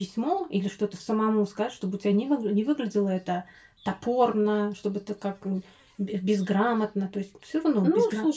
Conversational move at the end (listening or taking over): taking over